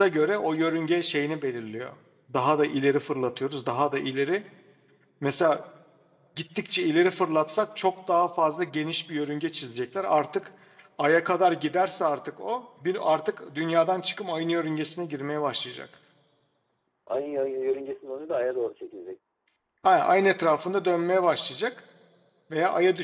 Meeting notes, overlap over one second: none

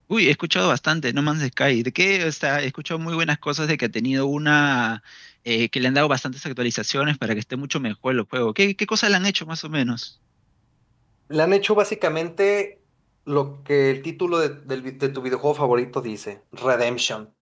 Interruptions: none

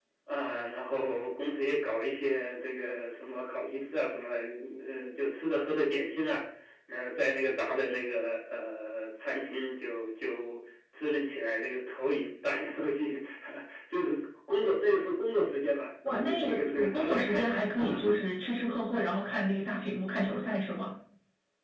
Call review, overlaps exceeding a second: present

